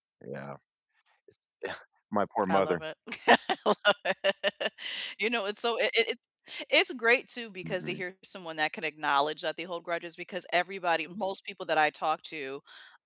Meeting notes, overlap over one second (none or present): none